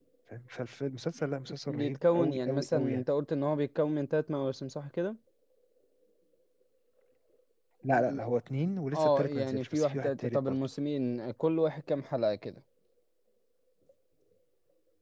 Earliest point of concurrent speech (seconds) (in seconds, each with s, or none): 1.7 s